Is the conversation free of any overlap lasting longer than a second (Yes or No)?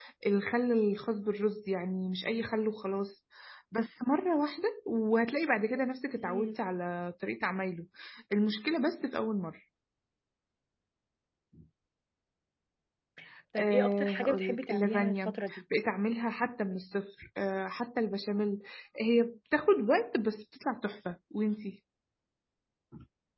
No